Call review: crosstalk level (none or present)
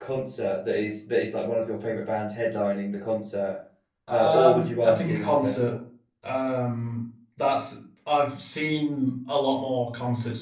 present